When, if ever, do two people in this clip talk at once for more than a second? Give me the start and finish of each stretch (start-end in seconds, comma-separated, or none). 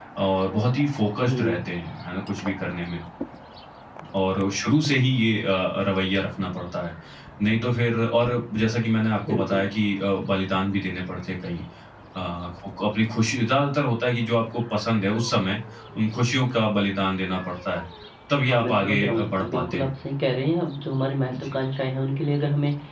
18.4-19.9